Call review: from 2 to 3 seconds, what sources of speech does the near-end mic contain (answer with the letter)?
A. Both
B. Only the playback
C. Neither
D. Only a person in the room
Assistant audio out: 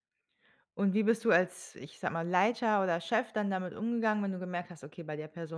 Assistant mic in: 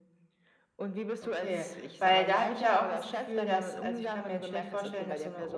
A